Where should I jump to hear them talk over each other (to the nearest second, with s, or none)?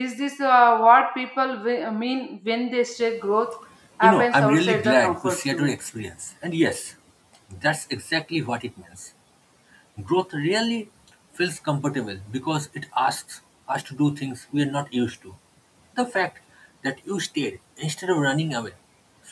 4 s